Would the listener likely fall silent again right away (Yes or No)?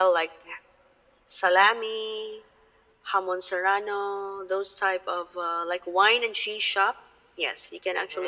Yes